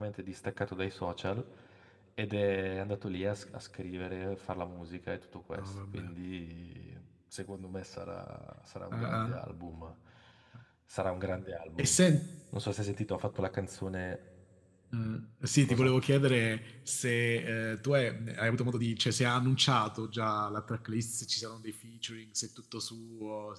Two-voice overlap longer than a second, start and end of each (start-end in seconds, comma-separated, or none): none